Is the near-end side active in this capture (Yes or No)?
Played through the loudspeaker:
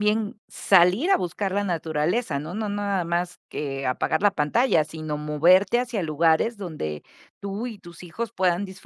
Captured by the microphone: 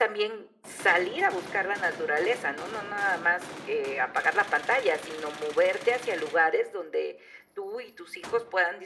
No